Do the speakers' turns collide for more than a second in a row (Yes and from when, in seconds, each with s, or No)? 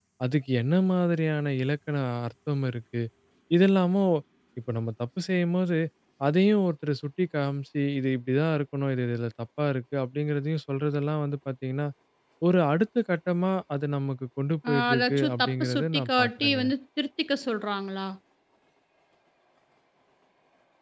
Yes, from 14.6 s